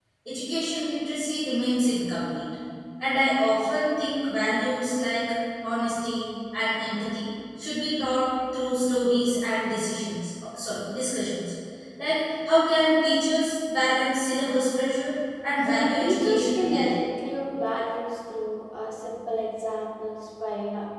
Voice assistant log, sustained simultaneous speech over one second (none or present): present